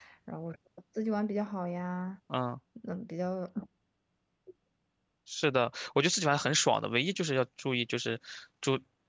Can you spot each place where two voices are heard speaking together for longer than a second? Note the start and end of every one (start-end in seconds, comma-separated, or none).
none